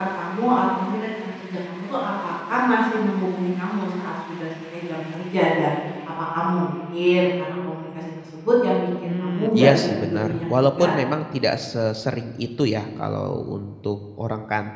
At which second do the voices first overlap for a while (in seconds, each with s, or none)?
9.0 s